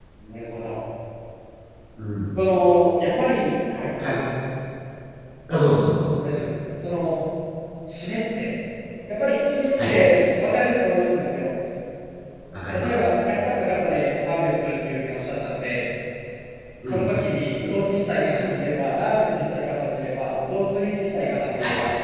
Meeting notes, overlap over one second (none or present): none